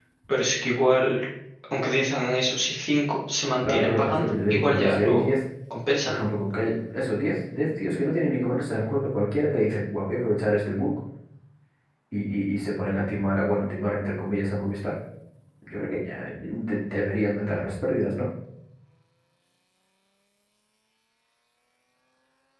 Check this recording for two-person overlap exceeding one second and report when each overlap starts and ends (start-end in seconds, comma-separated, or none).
3.6-5.3